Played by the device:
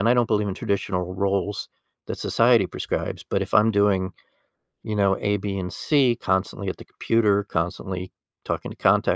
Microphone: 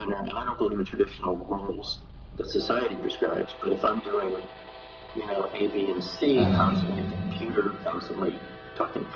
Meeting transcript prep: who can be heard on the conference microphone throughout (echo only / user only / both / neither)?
both